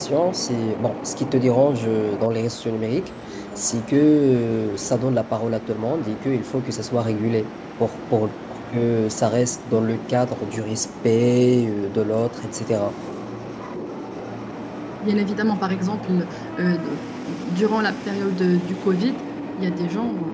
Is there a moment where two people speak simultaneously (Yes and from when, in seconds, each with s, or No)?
No